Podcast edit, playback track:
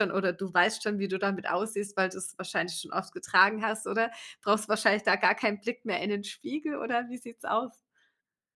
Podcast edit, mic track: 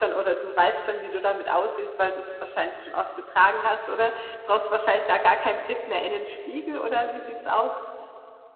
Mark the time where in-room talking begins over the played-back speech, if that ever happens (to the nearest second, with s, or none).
none